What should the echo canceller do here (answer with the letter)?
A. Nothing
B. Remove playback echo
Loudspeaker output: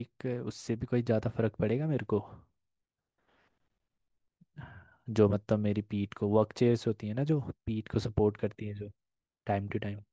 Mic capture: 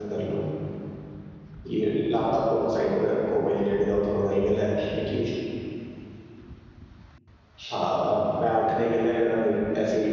A